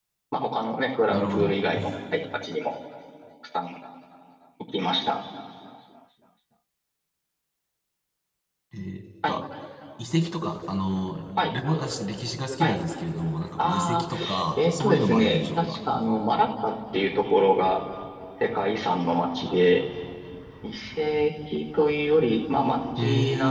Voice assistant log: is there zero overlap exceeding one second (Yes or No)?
No